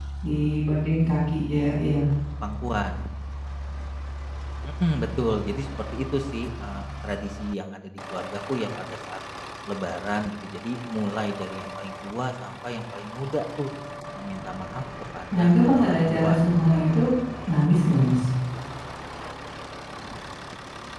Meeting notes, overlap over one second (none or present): present